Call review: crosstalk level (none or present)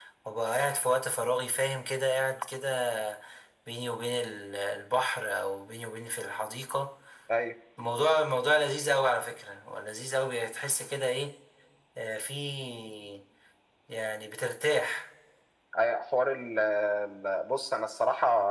none